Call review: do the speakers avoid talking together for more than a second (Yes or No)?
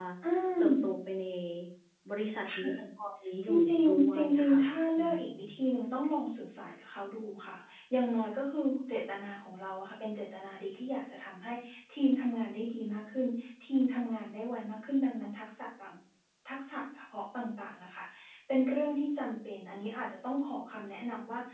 No